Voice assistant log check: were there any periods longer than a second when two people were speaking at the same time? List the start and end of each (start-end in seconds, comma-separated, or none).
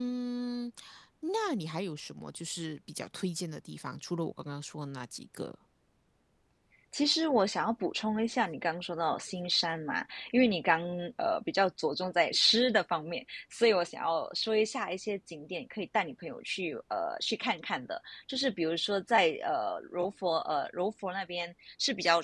none